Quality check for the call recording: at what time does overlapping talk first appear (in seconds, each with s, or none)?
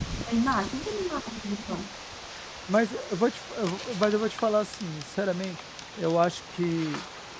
none